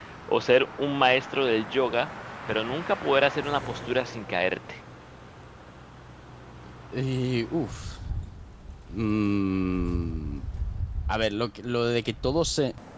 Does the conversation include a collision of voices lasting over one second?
No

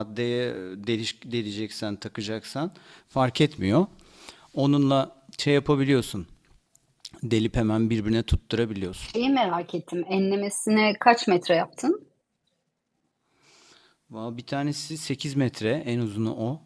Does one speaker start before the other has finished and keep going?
No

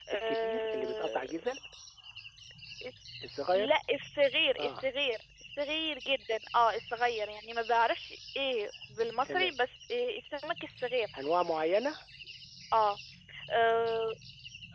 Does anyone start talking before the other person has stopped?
Yes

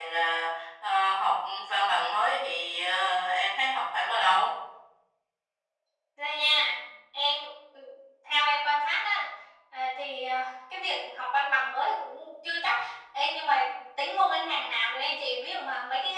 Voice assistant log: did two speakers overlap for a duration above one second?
No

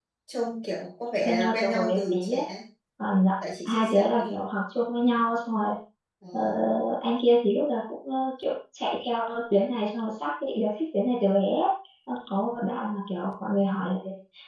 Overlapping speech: Yes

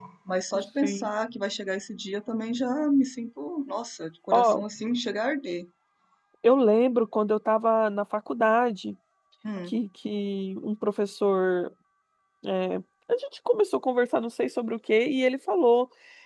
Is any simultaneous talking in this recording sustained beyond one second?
No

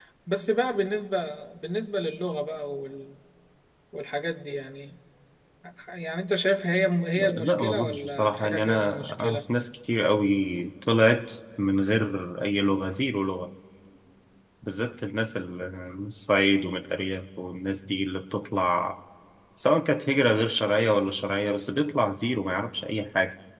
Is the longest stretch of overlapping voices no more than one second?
No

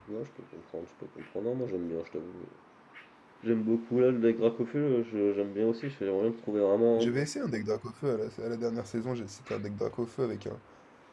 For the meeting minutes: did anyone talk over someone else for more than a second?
No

